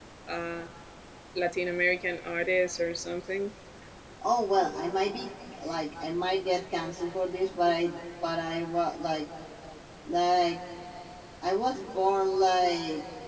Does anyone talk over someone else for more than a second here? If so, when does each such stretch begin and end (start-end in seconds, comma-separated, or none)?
none